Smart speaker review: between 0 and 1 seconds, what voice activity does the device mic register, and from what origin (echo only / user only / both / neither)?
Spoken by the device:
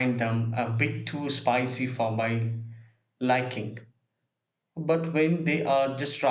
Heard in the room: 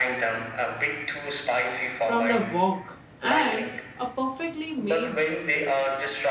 echo only